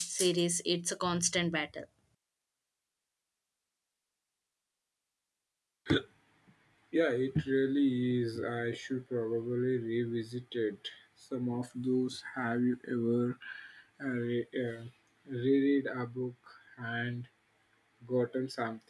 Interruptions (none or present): none